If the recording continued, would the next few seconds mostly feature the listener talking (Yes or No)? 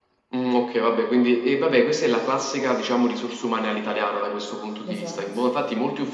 No